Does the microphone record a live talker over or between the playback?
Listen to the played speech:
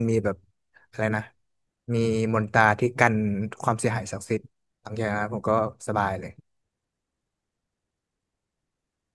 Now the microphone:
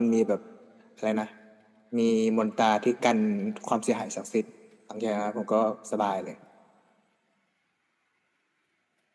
No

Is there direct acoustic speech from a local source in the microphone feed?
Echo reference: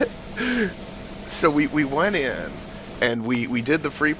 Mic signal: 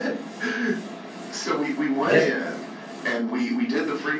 Yes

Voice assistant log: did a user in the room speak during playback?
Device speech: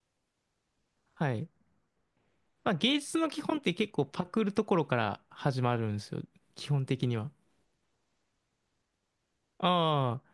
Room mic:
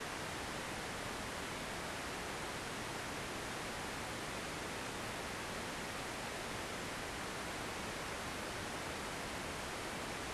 No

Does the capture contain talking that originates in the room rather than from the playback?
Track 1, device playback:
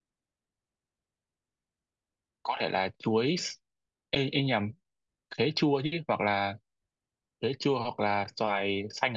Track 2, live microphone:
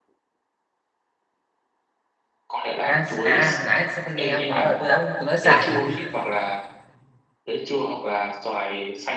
Yes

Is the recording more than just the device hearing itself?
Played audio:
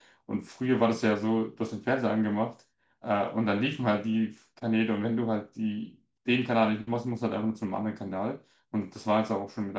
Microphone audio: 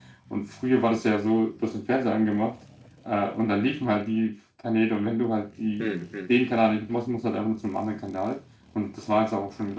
Yes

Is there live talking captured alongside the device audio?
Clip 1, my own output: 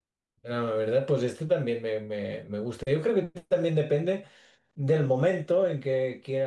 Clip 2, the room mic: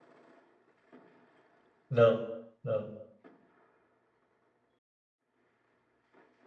Yes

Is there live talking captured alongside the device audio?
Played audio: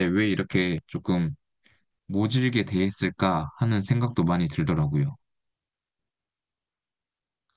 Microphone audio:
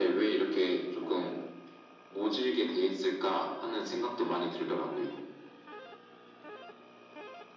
No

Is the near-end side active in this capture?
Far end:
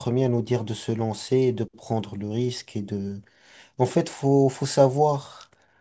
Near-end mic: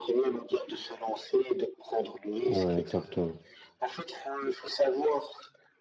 Yes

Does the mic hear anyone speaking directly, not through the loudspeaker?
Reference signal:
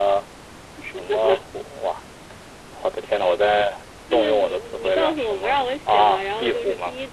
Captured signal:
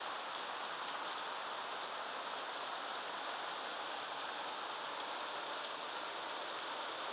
No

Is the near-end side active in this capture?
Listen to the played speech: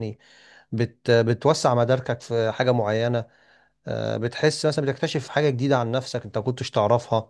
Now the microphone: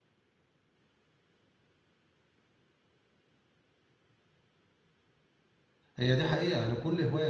Yes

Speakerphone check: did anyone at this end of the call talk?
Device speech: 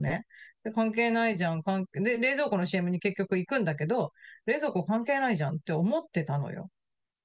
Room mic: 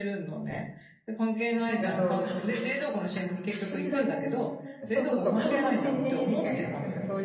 Yes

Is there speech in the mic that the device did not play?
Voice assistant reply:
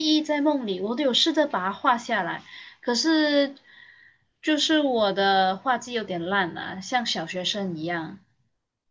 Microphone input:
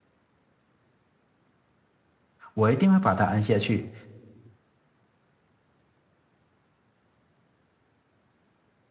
Yes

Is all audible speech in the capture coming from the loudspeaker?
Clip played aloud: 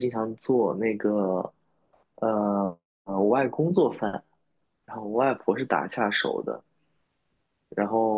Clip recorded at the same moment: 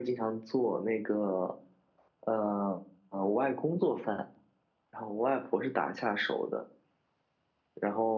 Yes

